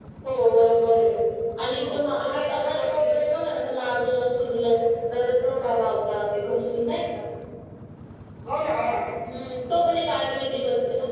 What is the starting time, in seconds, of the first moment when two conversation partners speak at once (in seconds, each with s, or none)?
1.8 s